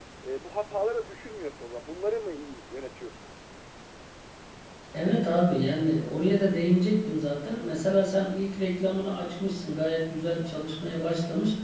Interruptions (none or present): none